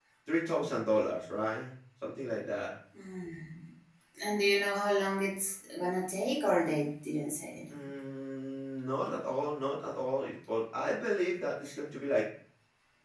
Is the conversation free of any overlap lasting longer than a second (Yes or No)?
Yes